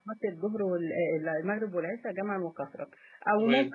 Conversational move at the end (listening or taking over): listening